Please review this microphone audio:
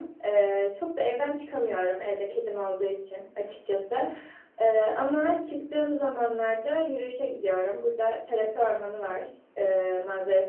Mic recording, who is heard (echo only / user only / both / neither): echo only